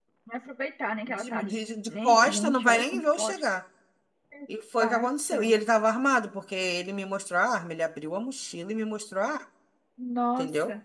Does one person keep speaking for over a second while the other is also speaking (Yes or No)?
Yes